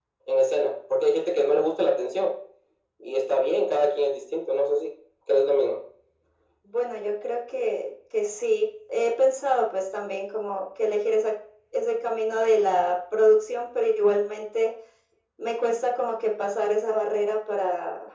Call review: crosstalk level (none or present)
none